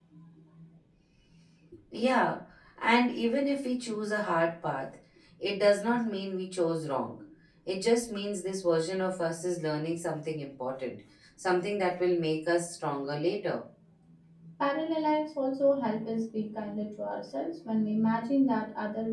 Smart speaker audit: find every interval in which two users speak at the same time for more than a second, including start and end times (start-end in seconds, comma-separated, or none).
none